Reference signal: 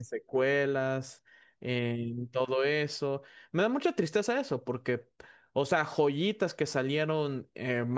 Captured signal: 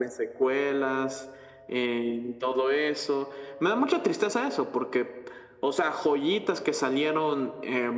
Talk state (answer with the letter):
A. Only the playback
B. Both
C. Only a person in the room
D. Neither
A